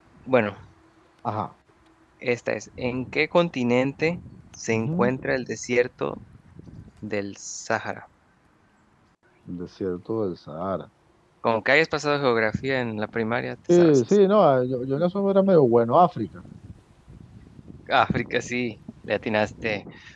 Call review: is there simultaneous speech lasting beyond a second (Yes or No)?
No